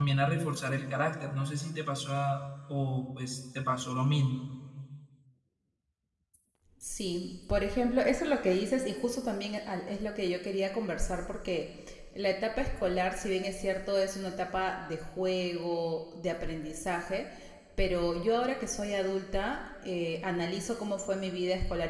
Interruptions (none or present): none